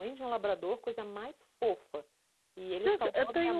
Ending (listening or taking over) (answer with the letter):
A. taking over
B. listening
A